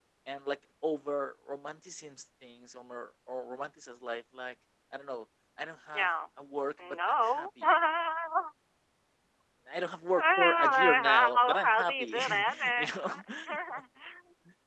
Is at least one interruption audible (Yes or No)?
Yes